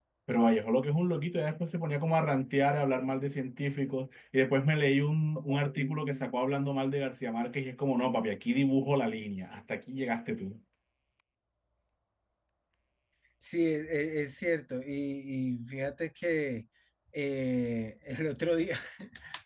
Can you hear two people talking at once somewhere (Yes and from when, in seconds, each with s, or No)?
No